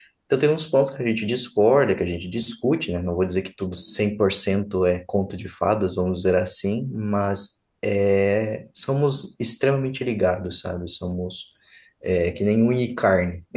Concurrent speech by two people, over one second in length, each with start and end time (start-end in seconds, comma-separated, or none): none